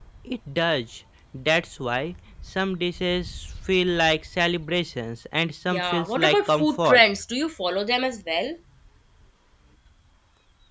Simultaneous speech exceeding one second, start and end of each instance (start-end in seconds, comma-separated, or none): 5.7-7.0